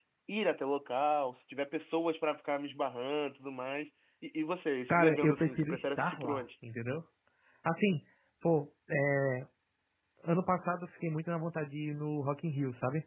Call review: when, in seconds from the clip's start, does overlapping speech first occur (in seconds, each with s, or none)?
4.9 s